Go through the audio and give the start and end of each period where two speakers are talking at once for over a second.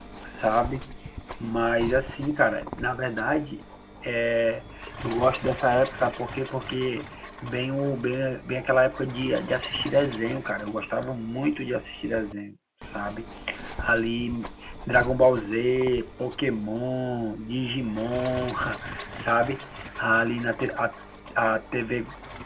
none

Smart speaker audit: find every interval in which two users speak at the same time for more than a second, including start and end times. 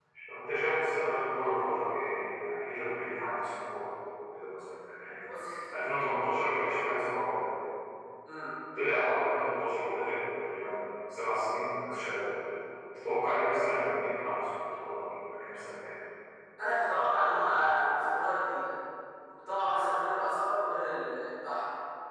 none

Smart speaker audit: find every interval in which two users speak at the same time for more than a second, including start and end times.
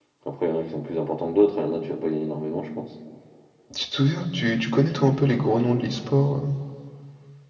none

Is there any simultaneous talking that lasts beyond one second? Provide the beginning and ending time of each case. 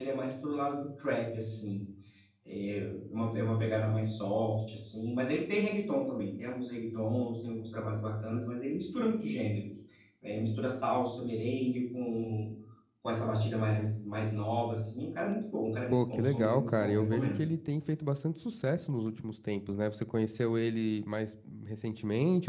15.9-17.4

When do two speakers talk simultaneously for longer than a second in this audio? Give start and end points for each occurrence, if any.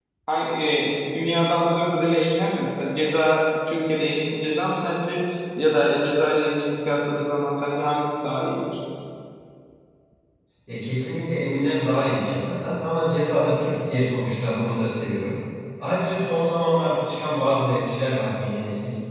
none

